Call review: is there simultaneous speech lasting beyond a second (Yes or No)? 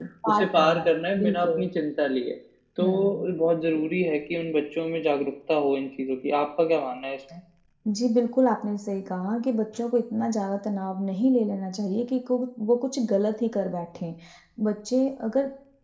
Yes